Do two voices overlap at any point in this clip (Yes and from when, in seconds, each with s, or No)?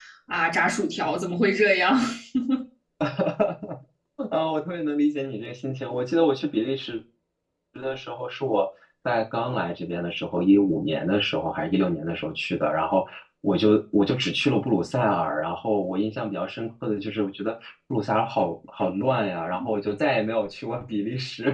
No